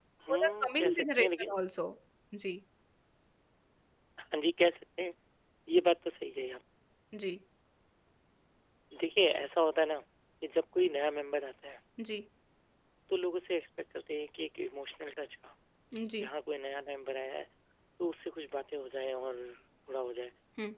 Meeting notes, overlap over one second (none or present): present